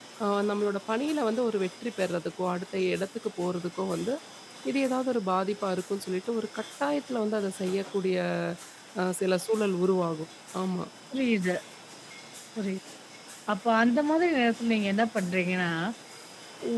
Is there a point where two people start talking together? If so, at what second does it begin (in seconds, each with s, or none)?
none